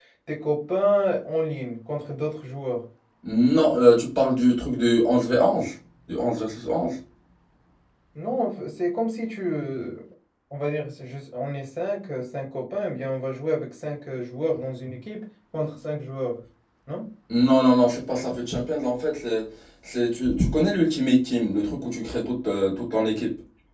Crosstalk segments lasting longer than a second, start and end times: none

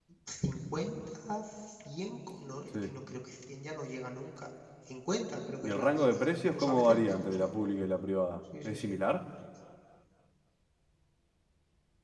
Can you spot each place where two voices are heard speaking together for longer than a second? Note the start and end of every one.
5.6-7.5

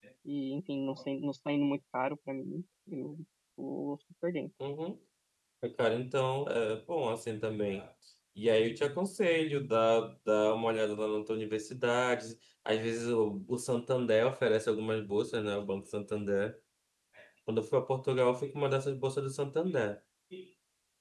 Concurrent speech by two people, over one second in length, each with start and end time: none

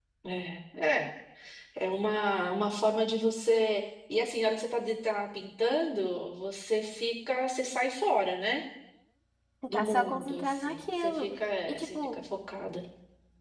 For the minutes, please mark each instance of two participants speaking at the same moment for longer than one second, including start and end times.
9.7-11.2

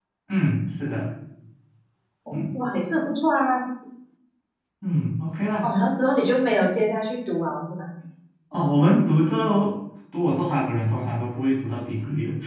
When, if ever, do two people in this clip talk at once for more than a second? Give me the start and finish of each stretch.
none

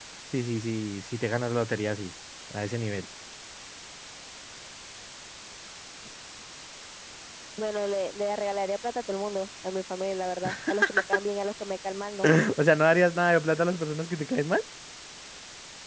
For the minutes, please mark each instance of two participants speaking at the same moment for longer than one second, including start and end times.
none

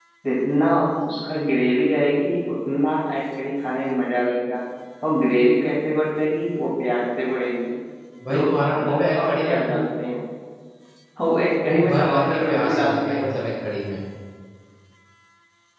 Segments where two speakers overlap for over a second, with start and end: 8.3-9.8, 11.6-13.2

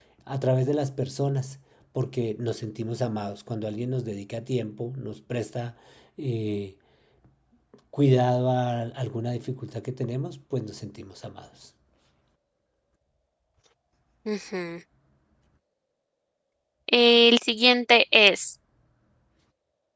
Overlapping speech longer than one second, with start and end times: none

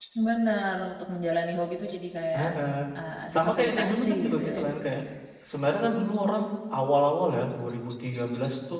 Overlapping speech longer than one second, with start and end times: 3.3-4.6

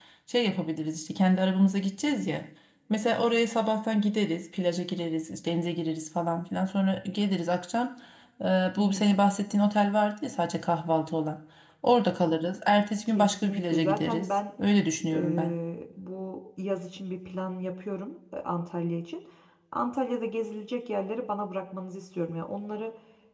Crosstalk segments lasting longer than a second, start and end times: 13.1-14.3

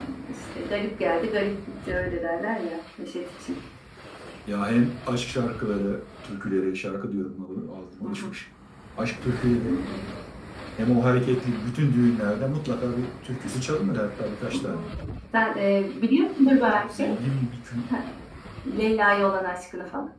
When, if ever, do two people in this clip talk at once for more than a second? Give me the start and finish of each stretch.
none

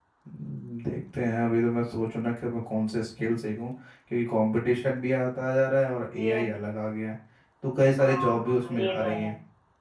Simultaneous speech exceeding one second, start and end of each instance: 8.0-9.3

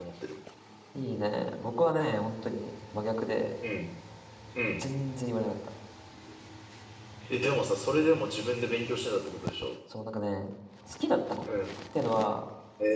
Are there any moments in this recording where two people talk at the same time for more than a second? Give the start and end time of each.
none

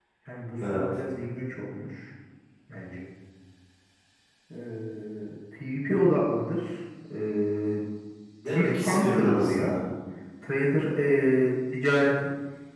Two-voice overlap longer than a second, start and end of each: 8.4-9.8

